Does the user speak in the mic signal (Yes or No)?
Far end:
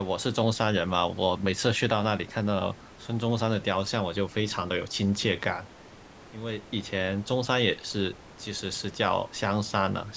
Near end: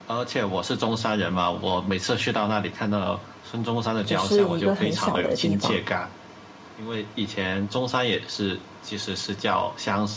Yes